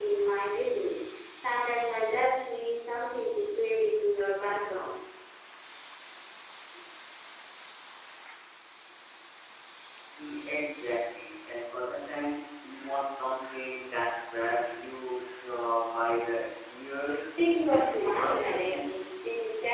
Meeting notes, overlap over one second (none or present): present